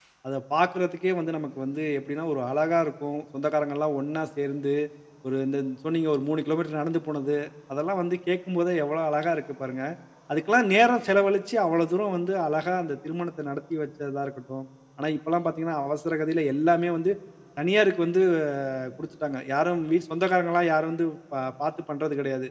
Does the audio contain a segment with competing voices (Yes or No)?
No